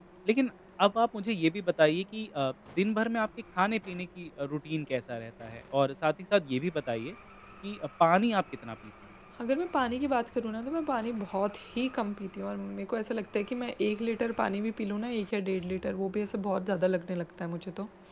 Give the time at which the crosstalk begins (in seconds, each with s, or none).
none